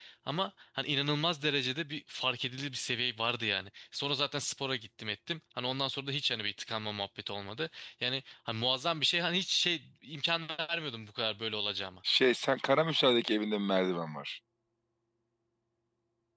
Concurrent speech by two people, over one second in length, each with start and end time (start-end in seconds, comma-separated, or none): none